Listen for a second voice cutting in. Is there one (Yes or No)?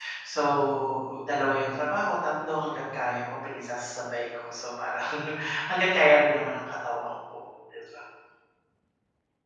No